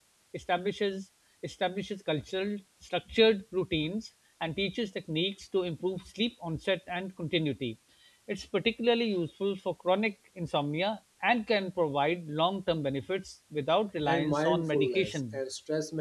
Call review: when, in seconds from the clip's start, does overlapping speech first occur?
14.1 s

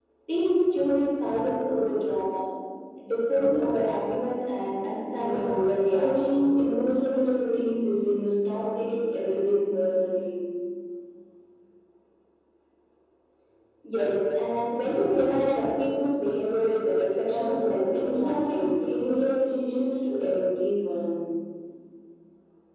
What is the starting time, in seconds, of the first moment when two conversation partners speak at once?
5.1 s

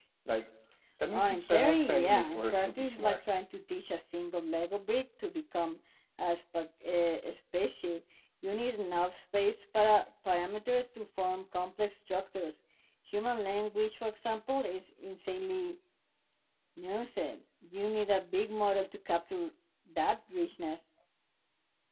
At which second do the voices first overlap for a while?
1.1 s

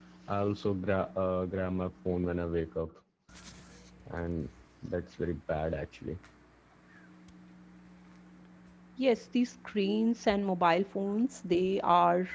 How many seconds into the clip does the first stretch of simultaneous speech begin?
none

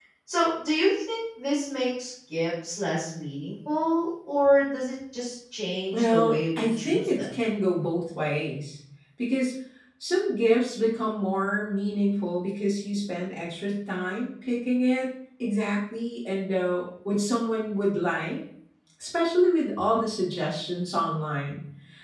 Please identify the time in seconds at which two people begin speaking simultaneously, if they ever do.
5.9 s

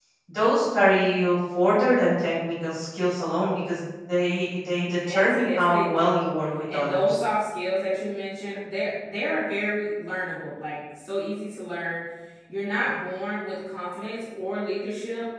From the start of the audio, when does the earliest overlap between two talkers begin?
4.9 s

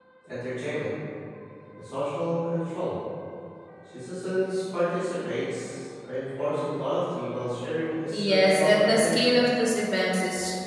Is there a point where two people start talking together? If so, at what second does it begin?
8.1 s

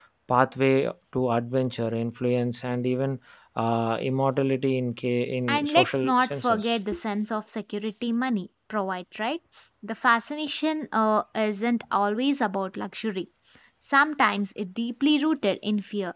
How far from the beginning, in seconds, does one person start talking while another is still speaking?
5.5 s

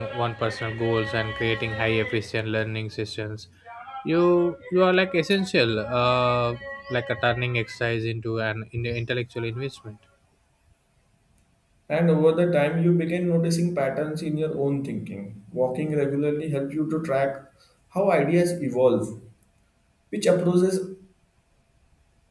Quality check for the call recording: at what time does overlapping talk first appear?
none

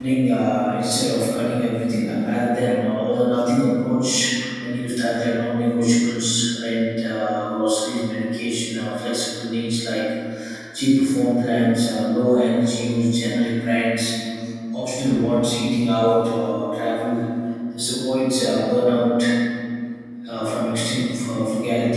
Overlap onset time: none

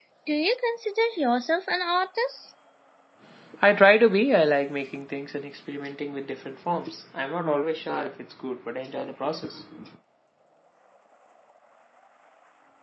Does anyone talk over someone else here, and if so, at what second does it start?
none

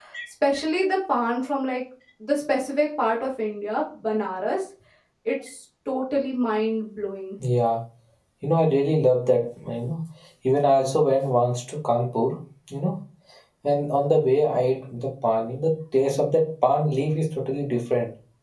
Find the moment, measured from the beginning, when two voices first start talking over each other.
none

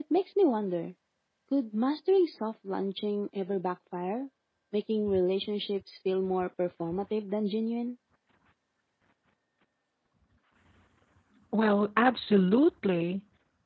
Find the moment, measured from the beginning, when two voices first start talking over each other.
none

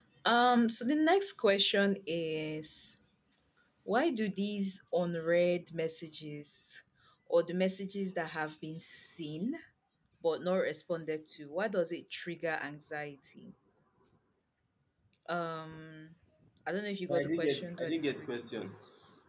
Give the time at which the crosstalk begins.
17.1 s

